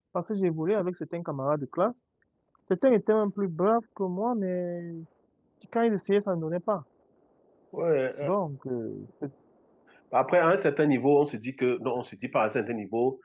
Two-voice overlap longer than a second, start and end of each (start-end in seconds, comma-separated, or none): none